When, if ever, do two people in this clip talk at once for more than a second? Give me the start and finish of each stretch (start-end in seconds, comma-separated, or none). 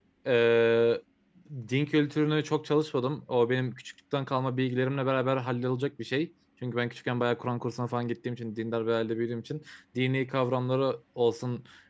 none